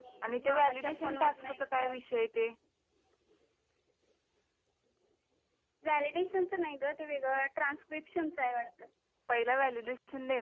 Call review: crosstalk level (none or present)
present